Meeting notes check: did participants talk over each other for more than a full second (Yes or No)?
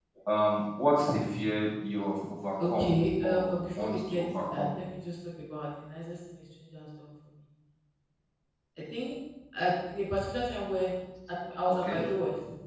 Yes